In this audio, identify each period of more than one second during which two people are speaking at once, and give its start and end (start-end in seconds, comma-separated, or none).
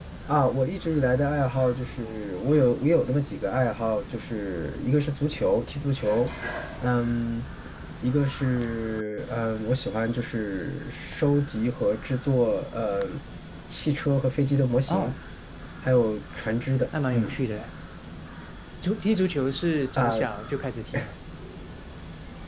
none